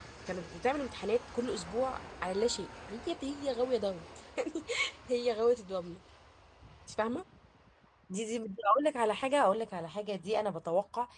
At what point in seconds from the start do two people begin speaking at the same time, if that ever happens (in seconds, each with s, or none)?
none